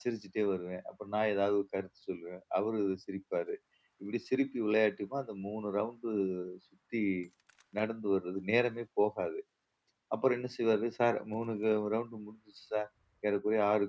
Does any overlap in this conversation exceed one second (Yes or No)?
No